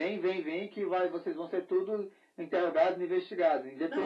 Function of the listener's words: taking over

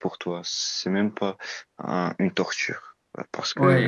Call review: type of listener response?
taking over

